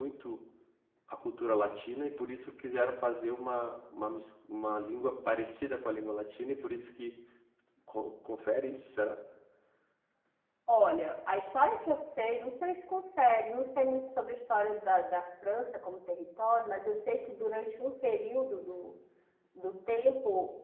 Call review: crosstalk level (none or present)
none